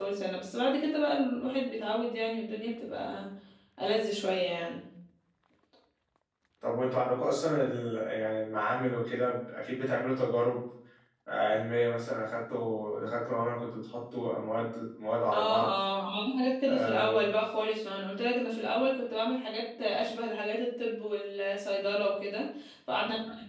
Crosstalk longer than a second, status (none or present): none